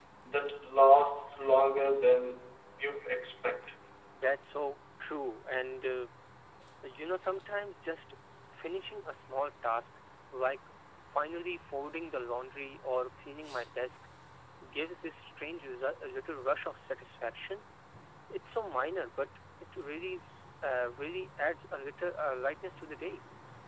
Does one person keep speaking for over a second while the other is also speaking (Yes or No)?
No